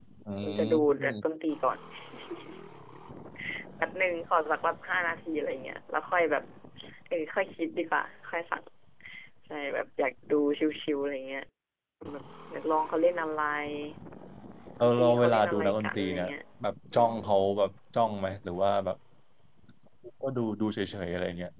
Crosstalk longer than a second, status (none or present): present